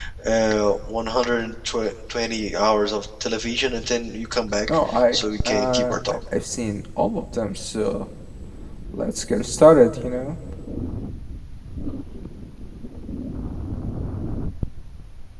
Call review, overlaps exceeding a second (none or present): present